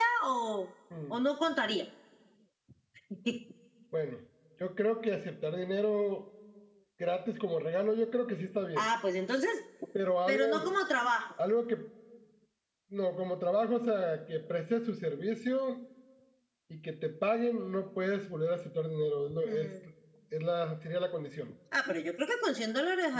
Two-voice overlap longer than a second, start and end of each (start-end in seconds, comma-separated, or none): none